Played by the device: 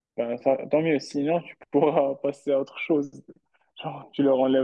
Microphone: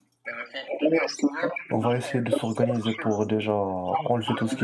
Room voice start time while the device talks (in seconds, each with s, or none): 1.7 s